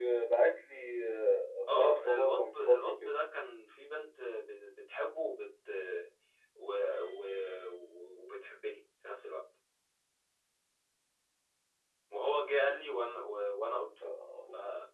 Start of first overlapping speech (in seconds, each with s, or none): 1.8 s